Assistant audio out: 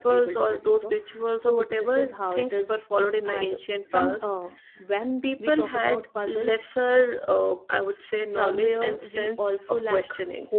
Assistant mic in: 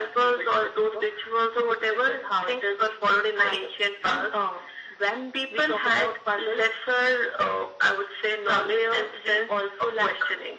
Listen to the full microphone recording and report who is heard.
echo only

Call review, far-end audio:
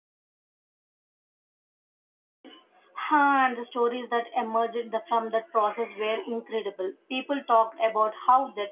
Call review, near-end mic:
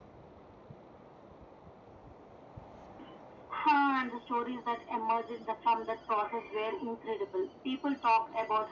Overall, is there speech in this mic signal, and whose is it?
echo only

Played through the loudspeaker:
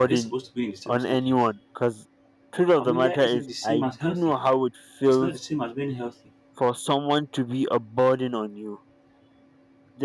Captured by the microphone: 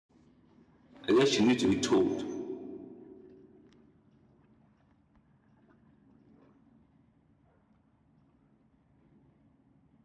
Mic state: user only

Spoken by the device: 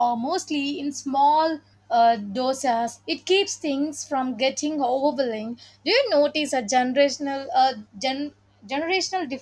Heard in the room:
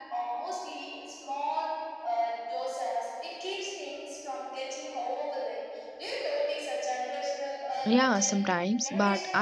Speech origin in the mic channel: both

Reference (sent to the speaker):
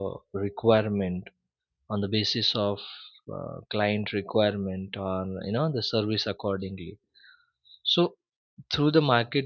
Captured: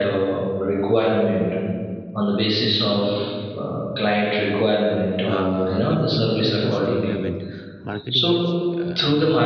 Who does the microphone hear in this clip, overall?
both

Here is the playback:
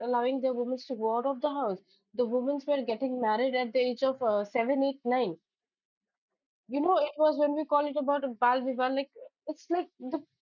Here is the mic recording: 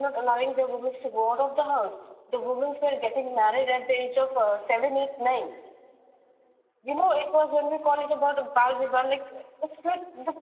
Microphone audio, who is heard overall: echo only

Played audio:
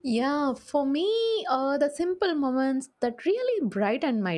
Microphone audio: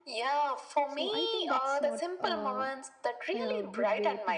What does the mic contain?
both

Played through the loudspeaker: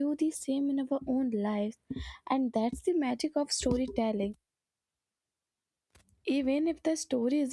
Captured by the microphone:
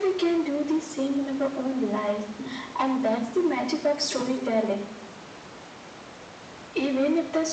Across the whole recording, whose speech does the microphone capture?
echo only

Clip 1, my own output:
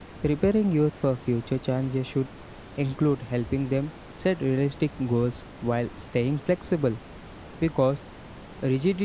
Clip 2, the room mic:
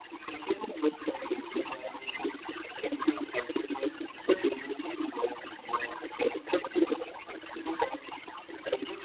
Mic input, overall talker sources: echo only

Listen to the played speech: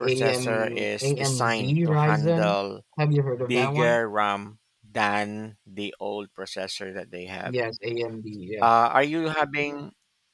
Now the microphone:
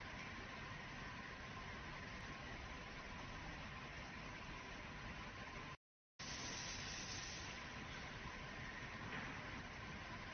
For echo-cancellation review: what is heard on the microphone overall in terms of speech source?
neither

